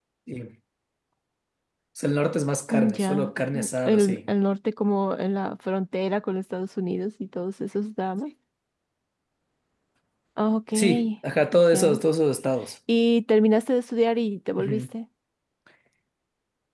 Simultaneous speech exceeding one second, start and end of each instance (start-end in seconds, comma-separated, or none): 2.7-4.2